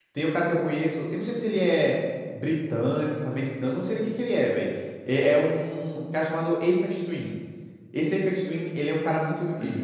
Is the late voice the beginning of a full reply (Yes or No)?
No